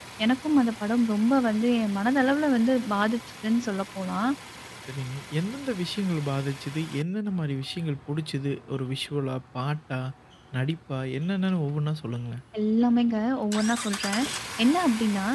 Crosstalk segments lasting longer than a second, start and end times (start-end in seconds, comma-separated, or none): none